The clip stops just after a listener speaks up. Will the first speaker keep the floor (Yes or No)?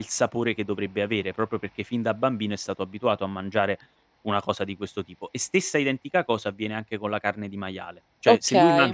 Yes